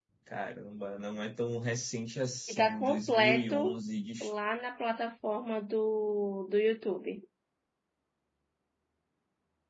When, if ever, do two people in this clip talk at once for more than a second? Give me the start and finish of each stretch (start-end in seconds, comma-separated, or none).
2.5-3.8